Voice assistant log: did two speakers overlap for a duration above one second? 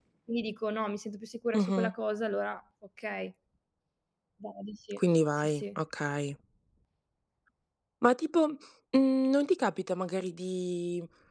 No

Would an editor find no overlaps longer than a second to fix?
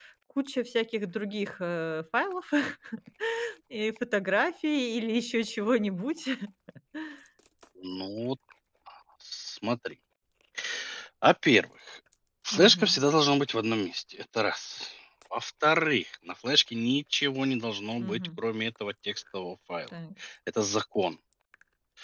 Yes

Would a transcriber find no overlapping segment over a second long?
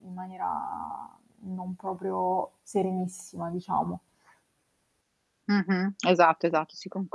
Yes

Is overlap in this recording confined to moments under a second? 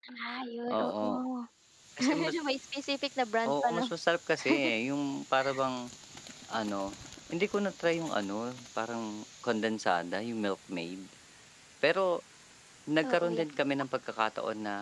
Yes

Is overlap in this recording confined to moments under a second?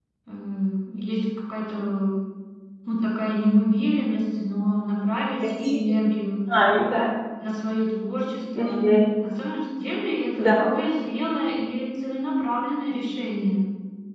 Yes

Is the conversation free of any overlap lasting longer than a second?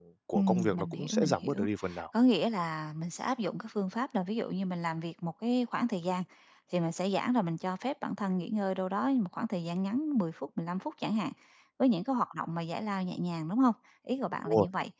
No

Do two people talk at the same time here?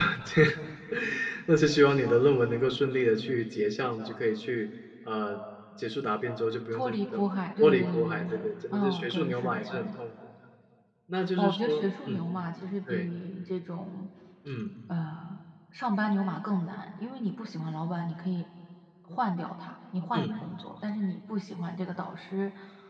Yes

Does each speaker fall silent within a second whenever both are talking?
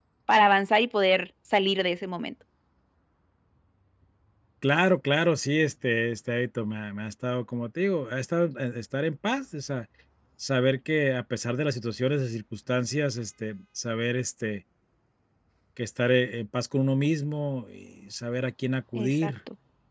Yes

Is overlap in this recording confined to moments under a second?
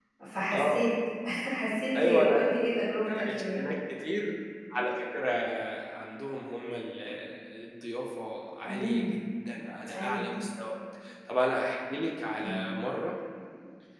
Yes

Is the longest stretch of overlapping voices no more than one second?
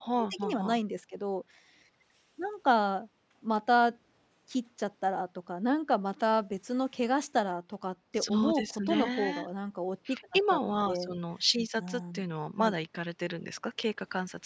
No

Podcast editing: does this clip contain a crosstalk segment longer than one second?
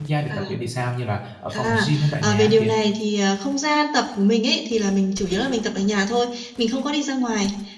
Yes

